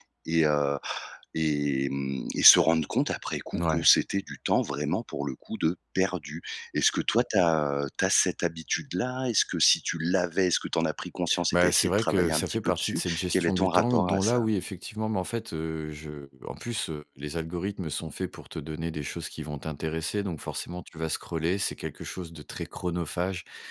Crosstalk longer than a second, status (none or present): present